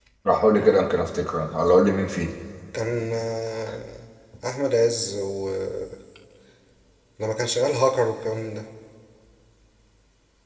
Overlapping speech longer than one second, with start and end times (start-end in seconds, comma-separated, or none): none